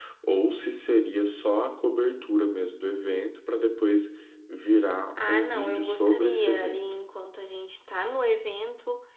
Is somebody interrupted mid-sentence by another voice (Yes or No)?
Yes